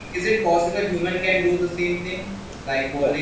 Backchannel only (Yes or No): Yes